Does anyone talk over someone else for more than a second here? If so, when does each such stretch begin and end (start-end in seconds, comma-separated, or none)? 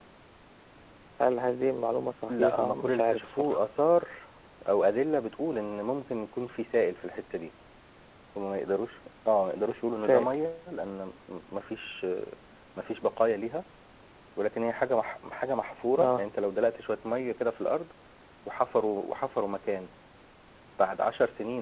2.3-3.6